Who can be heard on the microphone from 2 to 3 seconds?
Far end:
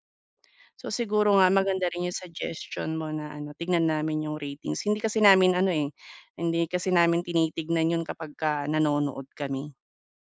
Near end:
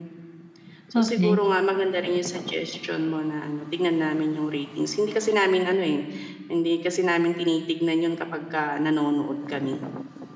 echo only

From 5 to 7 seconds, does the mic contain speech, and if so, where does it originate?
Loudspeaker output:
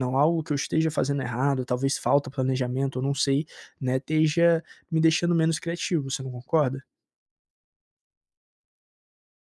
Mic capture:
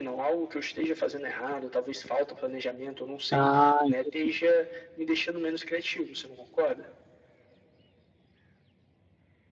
echo only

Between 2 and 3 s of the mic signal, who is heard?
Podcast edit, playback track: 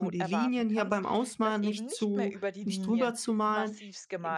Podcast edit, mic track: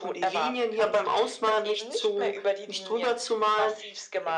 echo only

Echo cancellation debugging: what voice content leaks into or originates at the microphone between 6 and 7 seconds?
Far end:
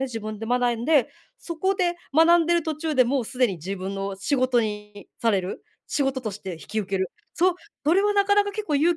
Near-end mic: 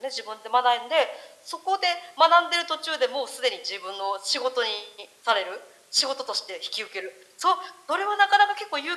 echo only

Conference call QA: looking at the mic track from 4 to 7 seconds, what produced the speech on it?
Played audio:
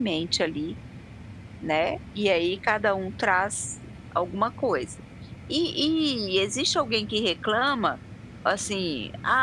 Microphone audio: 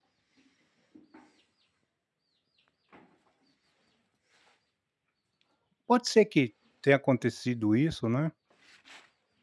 user only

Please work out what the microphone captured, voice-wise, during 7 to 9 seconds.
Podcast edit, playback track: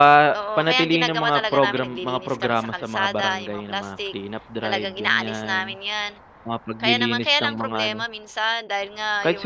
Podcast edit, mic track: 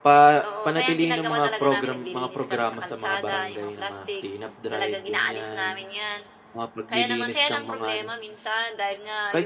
echo only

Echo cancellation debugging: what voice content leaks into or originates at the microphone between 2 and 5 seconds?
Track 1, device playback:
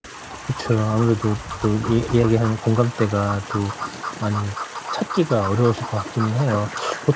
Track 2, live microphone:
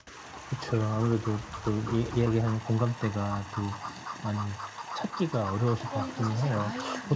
echo only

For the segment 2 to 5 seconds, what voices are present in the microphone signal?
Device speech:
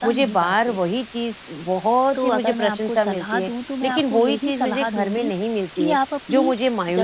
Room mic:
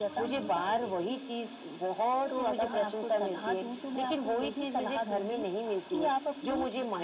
both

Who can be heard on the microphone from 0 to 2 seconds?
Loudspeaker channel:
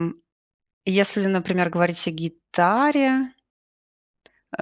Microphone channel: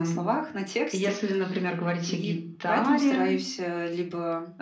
both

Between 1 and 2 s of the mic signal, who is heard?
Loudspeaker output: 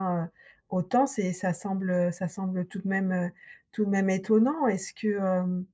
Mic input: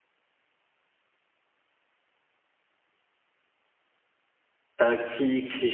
neither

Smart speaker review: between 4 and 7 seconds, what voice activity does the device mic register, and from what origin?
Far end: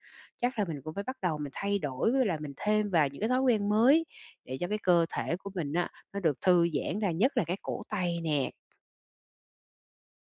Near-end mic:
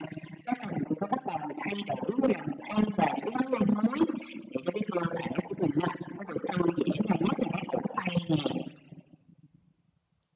echo only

